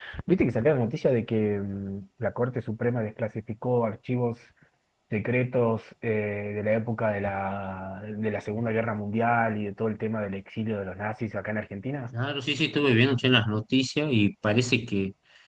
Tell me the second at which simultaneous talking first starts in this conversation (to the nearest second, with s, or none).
none